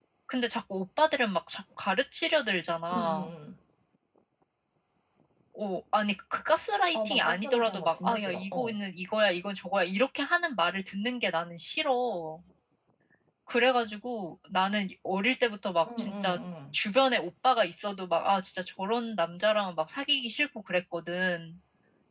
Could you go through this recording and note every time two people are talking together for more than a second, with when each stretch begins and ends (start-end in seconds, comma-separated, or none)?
6.9-8.8